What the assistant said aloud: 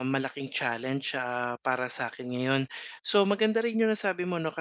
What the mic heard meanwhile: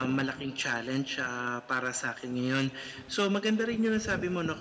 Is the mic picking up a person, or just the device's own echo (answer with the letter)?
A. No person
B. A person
A